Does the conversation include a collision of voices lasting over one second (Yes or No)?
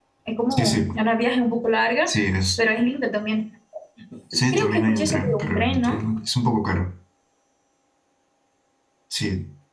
Yes